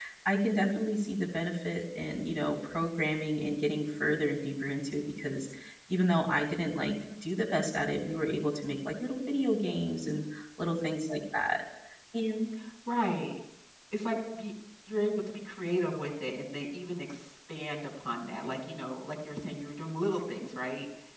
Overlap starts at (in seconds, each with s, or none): none